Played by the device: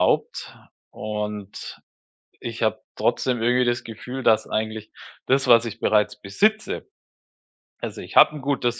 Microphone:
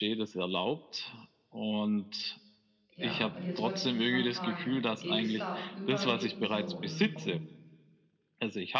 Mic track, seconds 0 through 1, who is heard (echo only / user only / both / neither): echo only